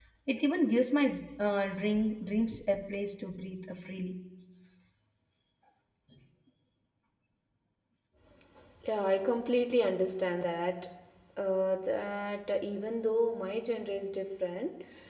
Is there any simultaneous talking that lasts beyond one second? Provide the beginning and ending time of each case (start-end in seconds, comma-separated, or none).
none